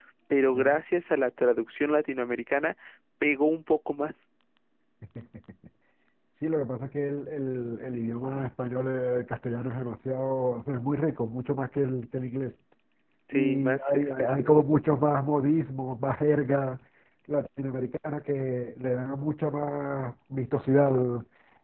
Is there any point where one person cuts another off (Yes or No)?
Yes